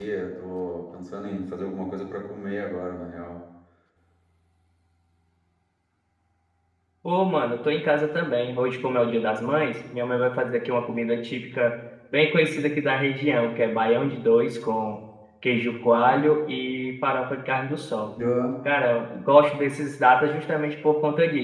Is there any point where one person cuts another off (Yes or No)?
No